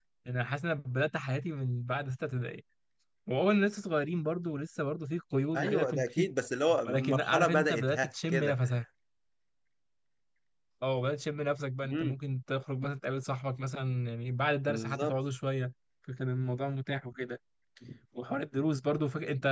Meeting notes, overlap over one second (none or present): present